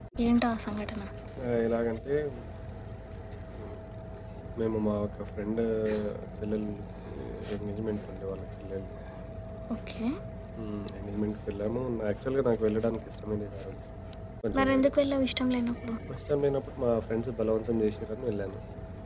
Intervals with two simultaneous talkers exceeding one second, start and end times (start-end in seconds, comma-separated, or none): none